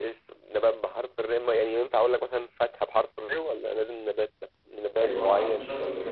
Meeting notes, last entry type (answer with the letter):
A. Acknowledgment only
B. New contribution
B